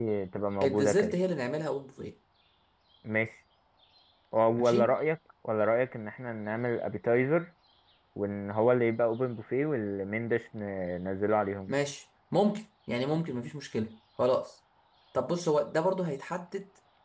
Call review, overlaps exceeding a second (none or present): none